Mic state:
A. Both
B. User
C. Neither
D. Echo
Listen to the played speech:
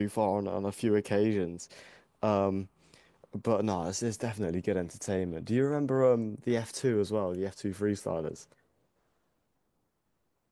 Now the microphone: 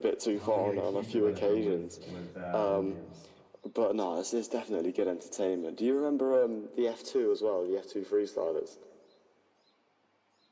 A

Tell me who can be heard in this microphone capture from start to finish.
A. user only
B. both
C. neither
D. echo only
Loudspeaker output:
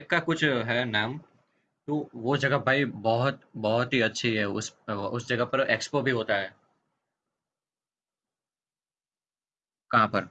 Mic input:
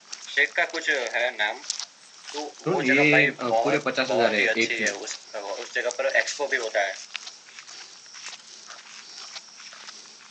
B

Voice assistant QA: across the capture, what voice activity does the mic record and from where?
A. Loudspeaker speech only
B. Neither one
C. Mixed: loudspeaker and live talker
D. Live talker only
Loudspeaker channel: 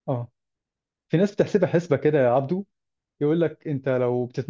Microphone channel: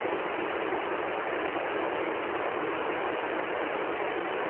B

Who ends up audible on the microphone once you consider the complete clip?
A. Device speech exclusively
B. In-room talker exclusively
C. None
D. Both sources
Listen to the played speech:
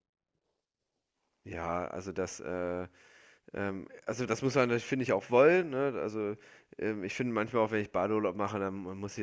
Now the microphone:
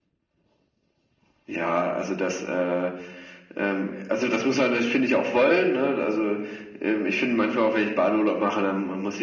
A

